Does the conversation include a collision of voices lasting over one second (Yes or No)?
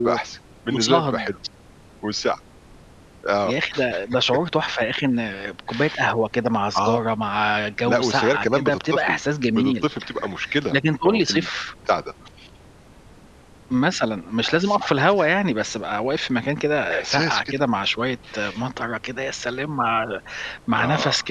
Yes